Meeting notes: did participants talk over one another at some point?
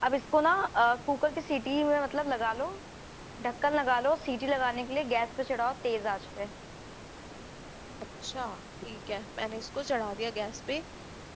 No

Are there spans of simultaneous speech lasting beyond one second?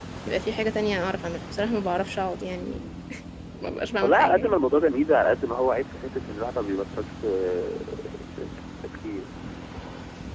No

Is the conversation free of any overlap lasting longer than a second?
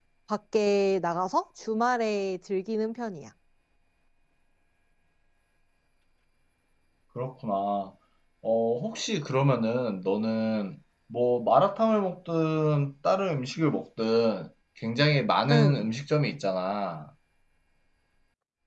Yes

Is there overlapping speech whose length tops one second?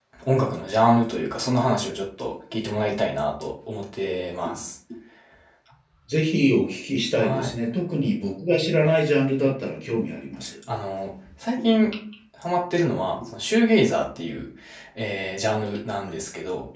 No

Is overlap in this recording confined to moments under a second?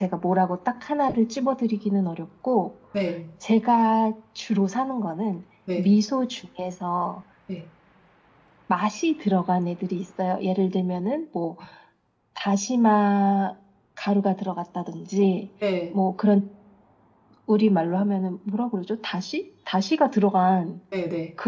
Yes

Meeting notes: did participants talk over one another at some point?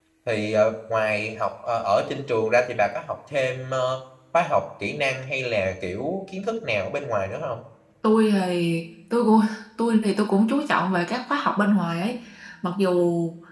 No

